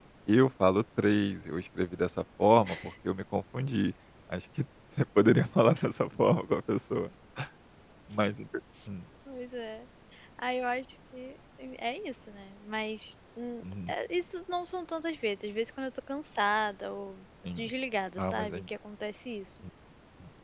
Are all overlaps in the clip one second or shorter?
Yes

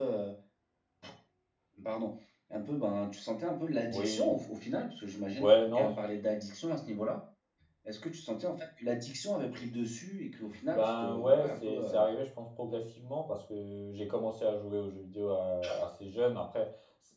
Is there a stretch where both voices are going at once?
Yes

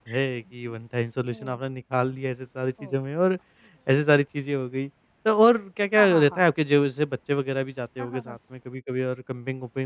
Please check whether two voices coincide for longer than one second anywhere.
No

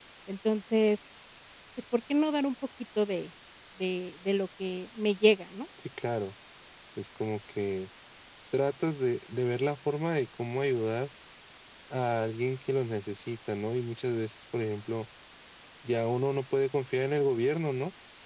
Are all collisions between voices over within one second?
Yes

